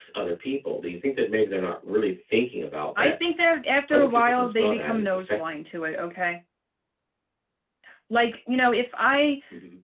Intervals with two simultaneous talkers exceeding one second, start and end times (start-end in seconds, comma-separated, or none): 3.9-5.4